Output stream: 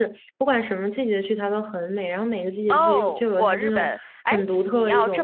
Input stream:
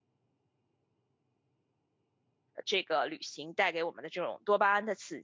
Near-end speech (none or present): present